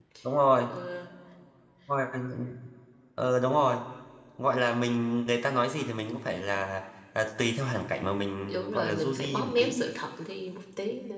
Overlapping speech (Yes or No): Yes